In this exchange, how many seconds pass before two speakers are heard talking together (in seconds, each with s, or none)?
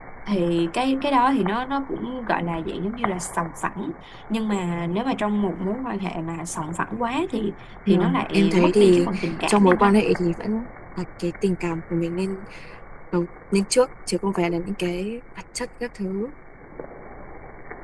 7.9 s